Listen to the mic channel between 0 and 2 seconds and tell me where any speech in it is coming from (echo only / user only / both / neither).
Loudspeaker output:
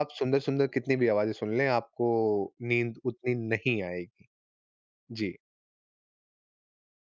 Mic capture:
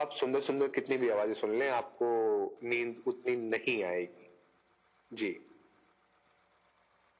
echo only